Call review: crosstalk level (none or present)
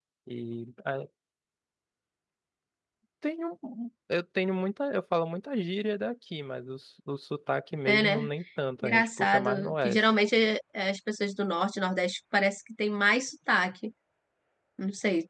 present